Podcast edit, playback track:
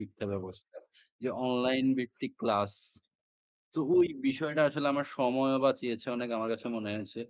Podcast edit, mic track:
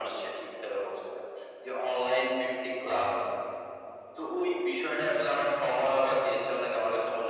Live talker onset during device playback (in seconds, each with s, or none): none